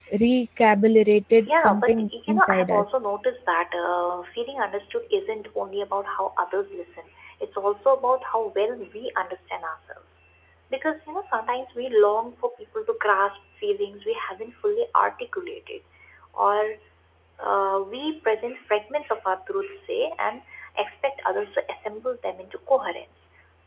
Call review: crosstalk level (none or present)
present